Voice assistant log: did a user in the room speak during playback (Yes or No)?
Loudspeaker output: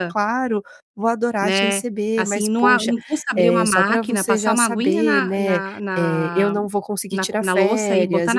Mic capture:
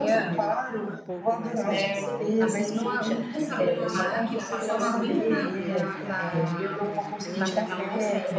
Yes